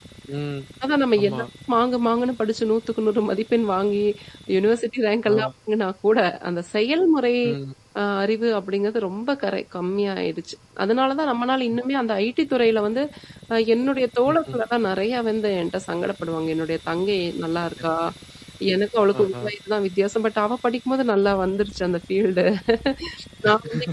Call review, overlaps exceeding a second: none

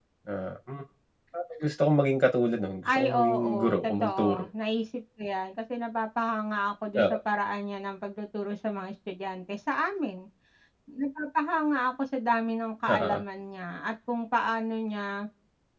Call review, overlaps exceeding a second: present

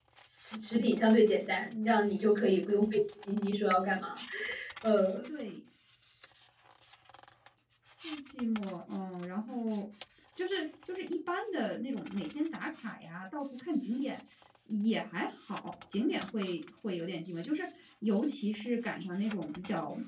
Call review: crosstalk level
none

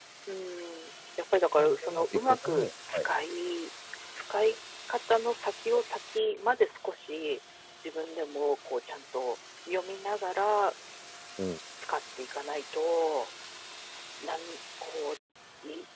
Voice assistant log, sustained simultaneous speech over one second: present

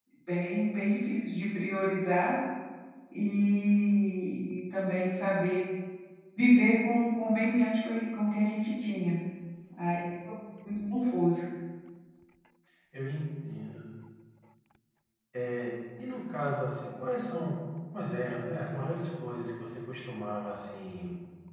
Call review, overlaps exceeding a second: none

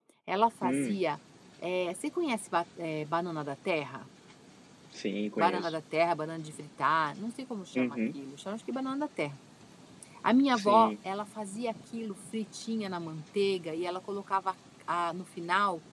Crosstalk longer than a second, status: none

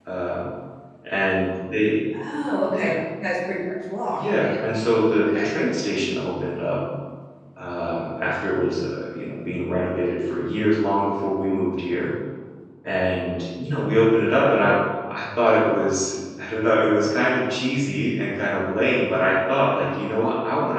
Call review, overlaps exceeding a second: none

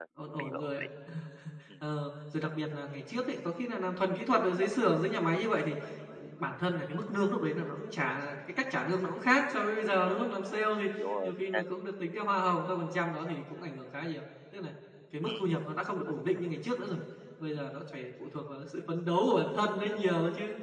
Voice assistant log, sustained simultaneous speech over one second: none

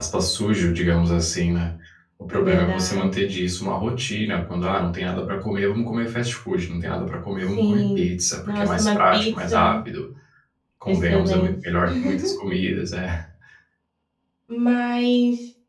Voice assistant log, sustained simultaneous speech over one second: present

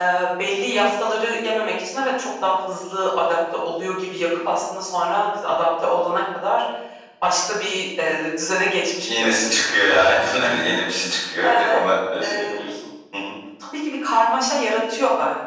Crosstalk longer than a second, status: present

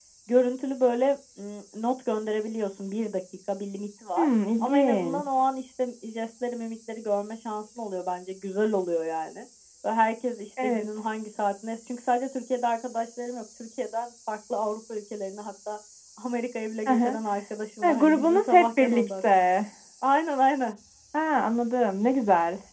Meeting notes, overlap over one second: present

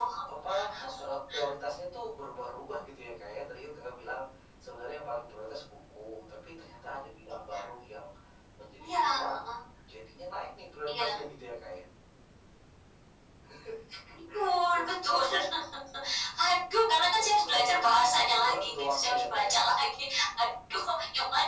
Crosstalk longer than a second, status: present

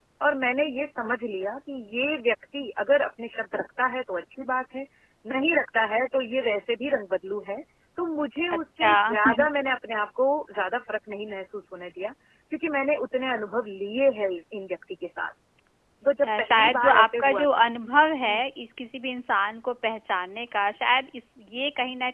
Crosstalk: present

